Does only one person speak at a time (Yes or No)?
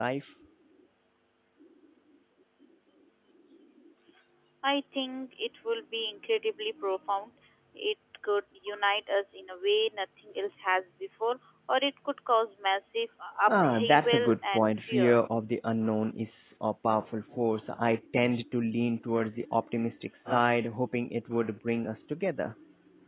No